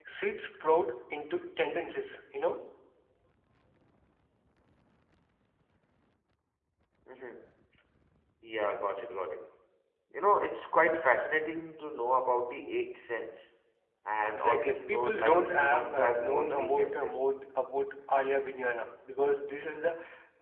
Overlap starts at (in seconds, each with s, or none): 14.2 s